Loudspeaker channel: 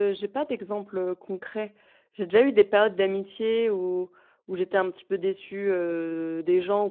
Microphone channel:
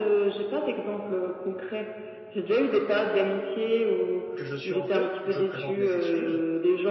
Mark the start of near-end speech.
4.3 s

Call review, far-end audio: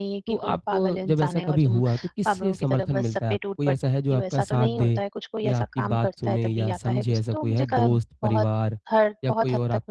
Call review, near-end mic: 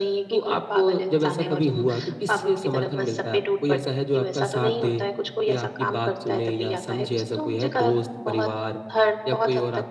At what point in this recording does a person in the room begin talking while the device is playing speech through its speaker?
none

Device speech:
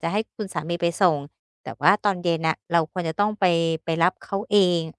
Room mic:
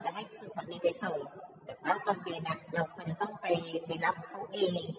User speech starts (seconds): none

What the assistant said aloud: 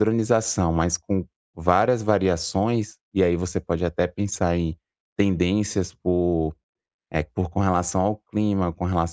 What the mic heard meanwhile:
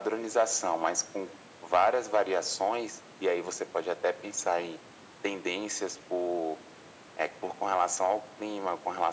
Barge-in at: none

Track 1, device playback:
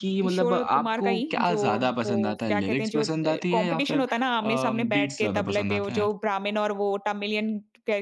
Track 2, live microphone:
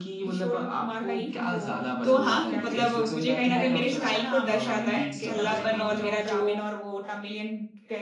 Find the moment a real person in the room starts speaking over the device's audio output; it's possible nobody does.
2.0 s

